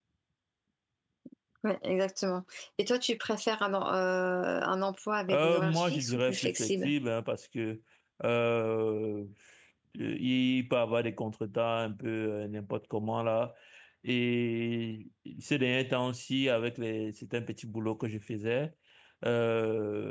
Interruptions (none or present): present